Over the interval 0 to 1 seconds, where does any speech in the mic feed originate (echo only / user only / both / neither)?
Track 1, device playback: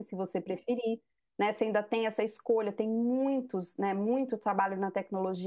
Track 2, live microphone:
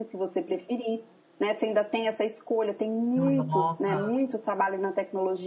echo only